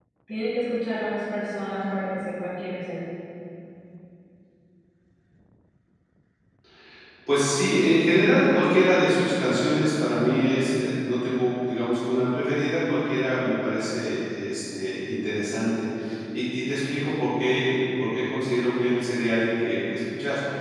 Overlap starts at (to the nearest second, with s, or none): none